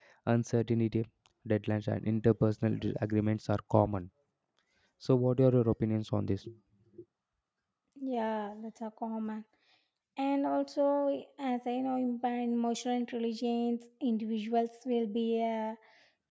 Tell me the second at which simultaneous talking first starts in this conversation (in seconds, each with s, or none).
none